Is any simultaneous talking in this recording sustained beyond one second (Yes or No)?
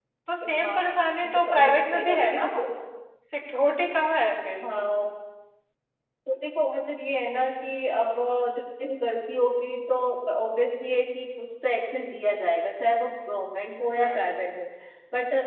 Yes